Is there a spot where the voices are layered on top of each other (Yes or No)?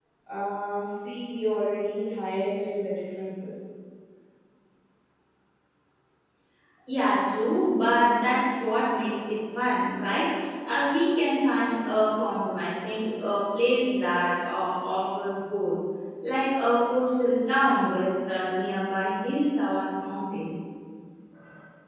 No